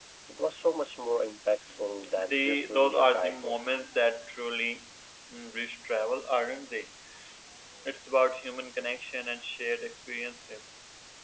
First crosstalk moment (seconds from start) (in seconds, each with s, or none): 2.1 s